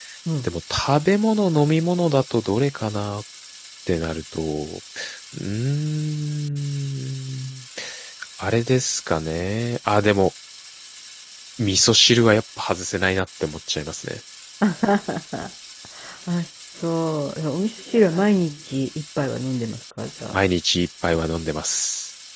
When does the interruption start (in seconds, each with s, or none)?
none